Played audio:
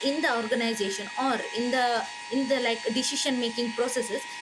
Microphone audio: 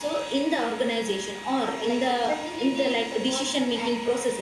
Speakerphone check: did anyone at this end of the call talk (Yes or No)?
Yes